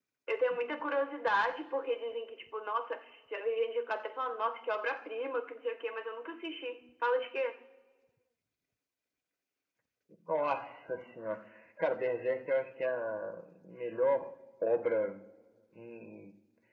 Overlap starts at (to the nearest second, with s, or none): none